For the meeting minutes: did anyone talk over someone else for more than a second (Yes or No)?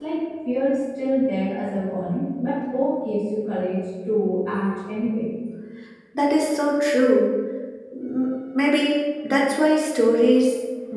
No